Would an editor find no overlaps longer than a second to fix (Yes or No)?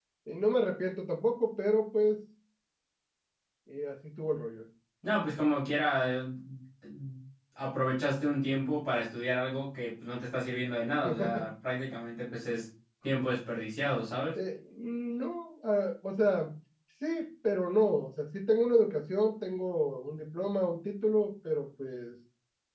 Yes